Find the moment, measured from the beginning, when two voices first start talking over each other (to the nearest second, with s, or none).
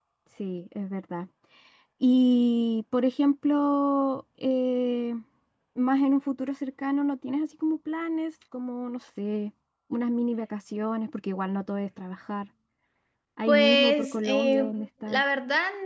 13 s